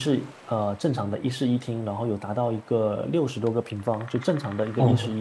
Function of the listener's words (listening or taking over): taking over